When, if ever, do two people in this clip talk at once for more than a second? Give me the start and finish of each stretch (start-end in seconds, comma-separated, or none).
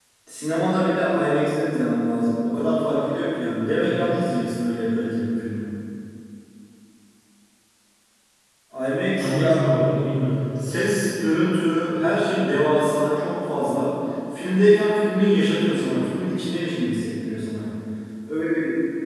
none